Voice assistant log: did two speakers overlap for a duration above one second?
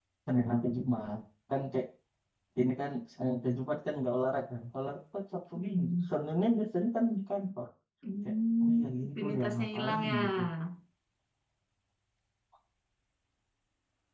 Yes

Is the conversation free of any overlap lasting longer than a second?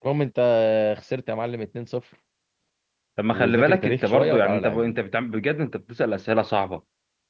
No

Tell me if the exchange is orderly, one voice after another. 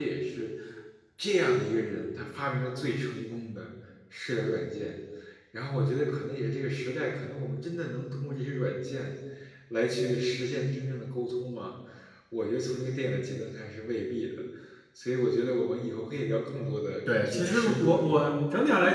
No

